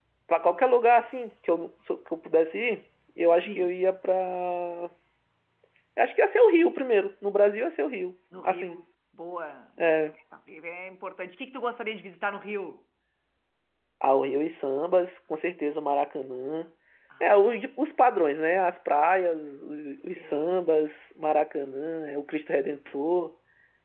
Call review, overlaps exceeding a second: none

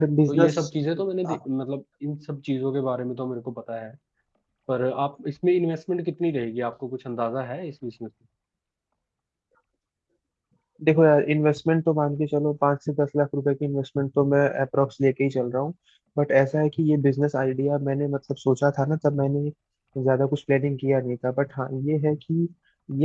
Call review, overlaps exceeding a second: none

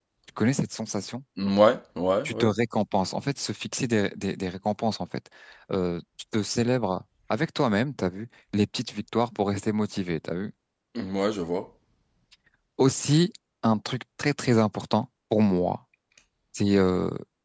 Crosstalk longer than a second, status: none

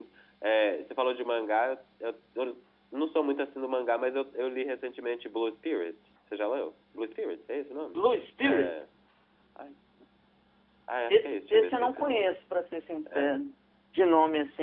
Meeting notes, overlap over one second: present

